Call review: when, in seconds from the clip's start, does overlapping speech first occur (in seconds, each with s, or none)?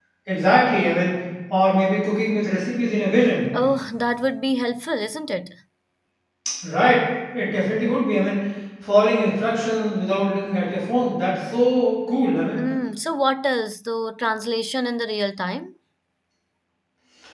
none